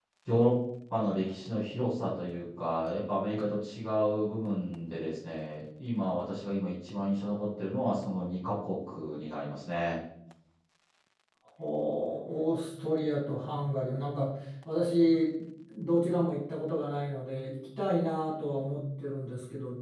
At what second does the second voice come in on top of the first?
none

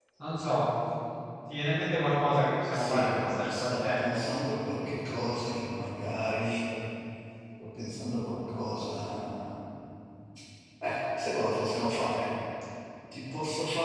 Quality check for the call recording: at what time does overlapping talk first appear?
3 s

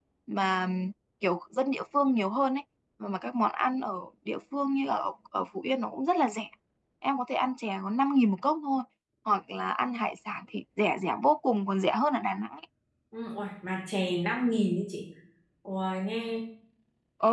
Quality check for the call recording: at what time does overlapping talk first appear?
none

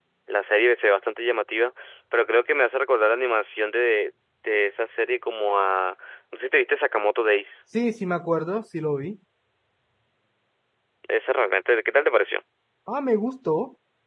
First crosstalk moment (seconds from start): none

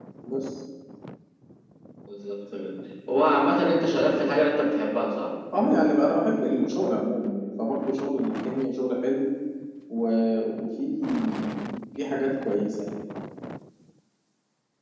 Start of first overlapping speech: none

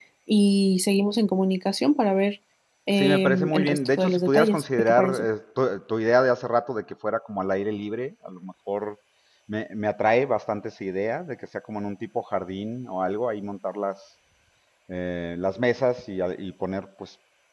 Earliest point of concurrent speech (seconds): 3 s

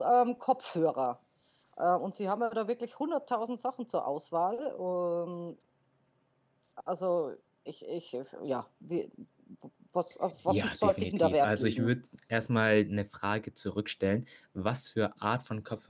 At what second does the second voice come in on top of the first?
10 s

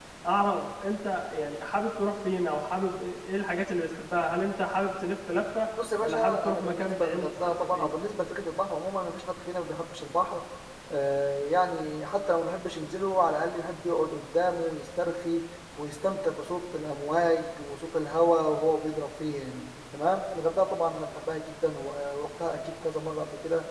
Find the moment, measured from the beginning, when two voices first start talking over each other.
6 s

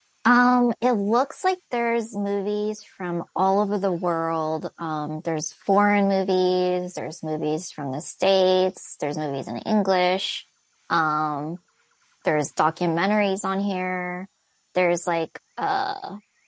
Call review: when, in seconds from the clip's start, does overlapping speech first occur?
none

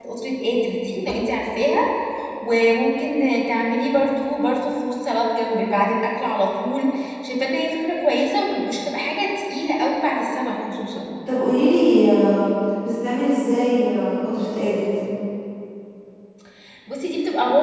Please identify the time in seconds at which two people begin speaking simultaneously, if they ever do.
none

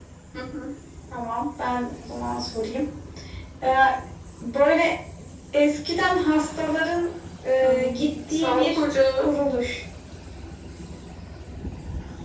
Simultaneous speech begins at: 8 s

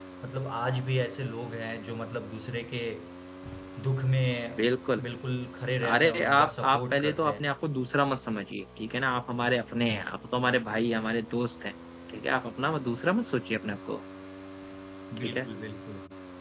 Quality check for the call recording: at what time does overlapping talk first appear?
6 s

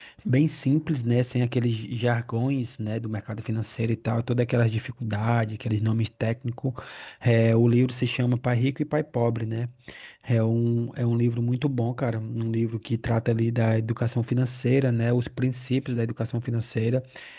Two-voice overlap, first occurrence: none

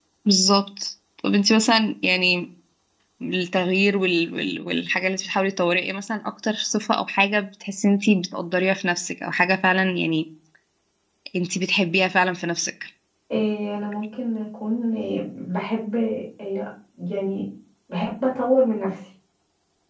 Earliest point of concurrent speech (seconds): none

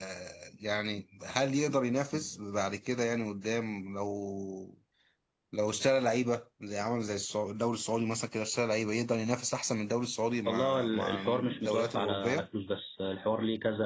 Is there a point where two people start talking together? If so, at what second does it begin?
10 s

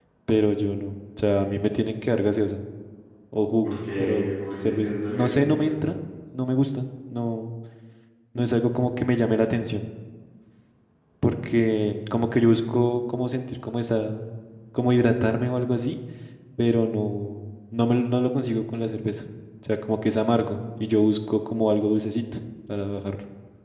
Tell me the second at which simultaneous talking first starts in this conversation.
4 s

